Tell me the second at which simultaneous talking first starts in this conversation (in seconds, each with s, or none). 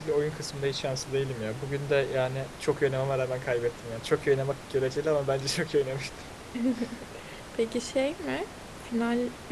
none